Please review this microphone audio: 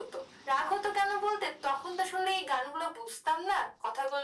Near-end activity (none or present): none